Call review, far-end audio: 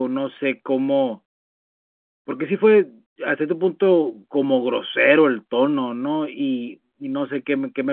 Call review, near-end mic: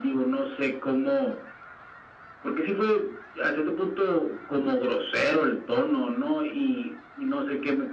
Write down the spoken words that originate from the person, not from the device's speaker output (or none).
none